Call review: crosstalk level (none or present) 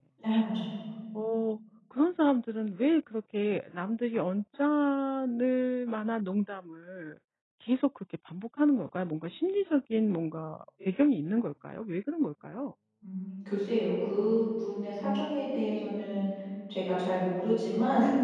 none